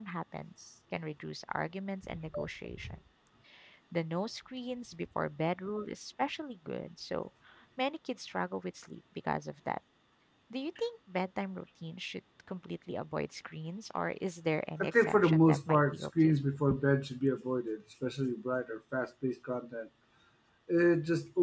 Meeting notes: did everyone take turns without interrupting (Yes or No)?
No